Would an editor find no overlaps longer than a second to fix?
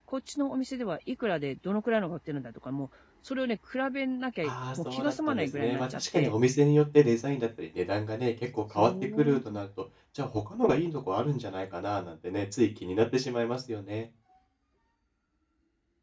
No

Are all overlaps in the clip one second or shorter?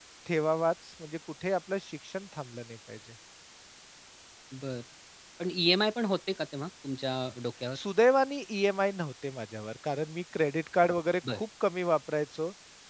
Yes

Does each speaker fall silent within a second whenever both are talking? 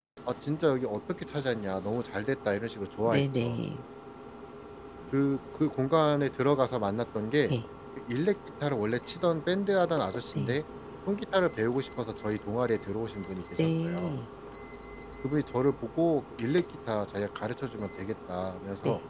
Yes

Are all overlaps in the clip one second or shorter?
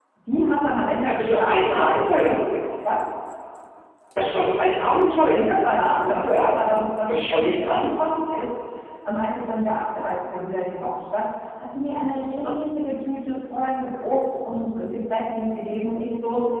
No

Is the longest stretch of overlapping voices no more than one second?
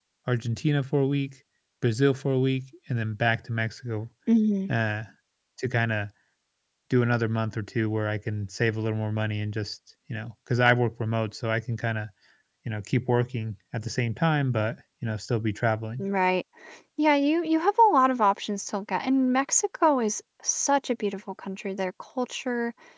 Yes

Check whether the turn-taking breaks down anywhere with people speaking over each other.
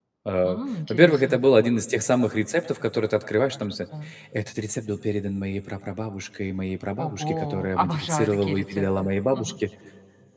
Yes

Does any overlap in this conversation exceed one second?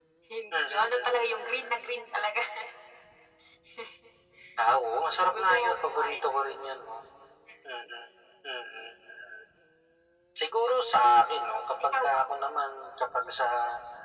Yes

